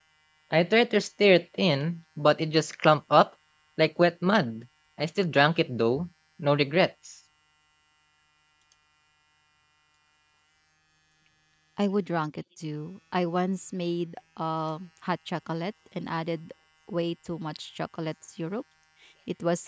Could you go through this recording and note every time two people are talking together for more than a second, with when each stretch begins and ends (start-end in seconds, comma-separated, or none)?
none